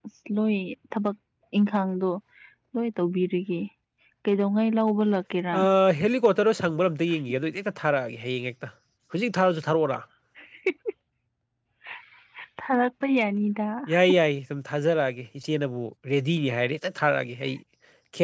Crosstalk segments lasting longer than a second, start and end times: none

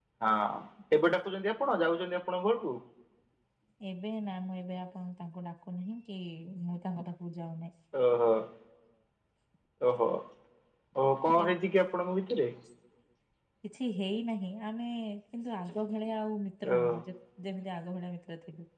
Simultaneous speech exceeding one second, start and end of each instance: none

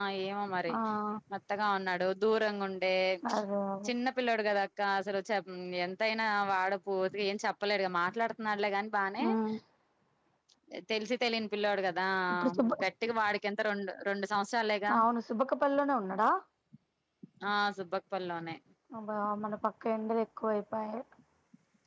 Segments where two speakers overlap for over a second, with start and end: none

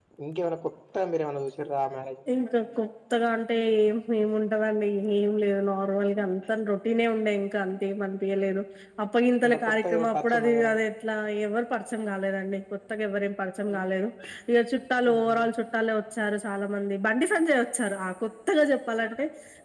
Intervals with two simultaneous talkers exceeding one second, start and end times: 9.5-10.7

